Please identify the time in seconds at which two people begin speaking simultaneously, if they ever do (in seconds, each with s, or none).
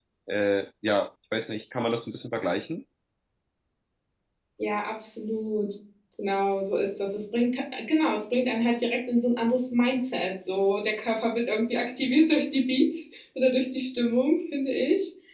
none